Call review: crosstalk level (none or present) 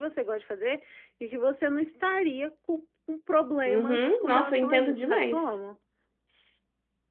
present